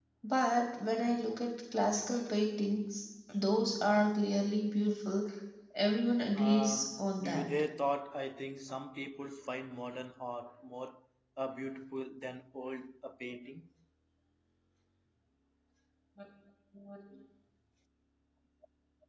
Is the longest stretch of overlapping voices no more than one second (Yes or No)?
No